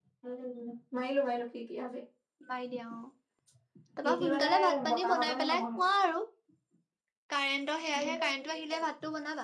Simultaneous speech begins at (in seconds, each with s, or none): 4.0 s